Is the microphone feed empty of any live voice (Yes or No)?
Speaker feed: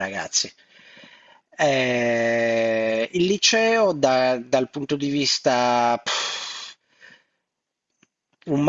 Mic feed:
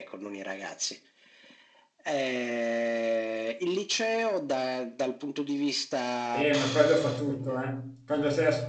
No